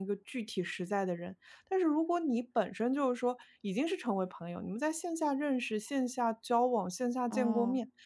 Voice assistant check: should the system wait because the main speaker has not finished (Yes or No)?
Yes